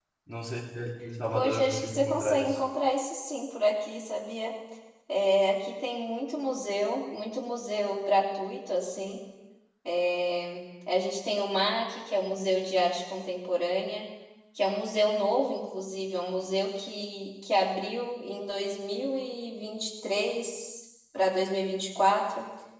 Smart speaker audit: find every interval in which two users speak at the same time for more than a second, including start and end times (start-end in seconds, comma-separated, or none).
1.3-2.6